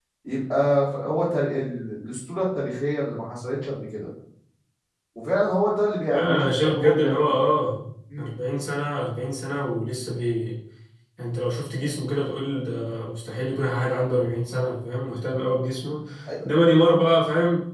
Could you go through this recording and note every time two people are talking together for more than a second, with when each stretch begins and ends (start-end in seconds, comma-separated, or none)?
6.1-7.4